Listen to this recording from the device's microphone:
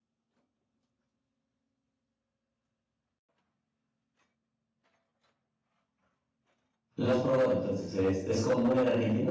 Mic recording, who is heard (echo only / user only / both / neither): user only